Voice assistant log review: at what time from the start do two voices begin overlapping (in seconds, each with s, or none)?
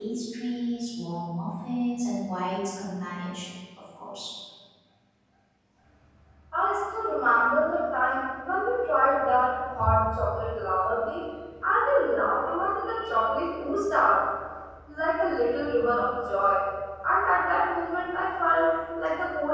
none